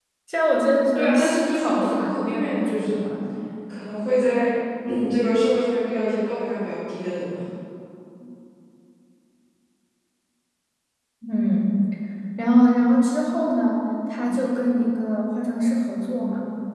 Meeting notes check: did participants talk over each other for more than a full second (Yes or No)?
Yes